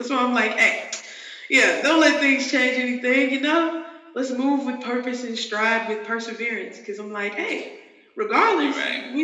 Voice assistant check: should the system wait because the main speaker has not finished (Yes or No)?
Yes